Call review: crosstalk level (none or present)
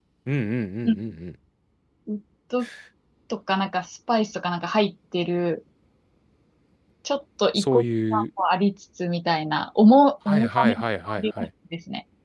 present